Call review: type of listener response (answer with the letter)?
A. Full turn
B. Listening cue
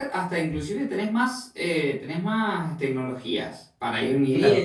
A